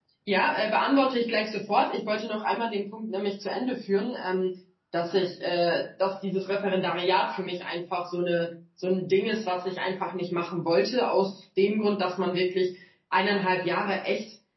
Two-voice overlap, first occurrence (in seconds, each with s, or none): none